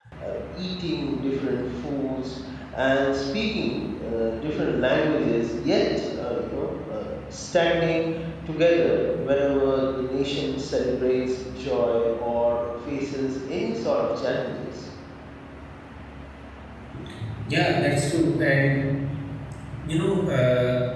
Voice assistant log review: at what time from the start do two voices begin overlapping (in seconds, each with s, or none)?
none